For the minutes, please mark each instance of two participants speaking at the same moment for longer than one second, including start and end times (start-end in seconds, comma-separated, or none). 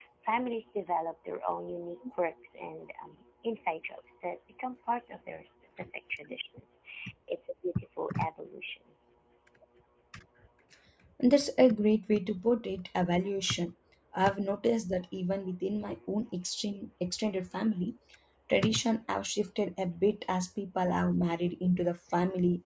none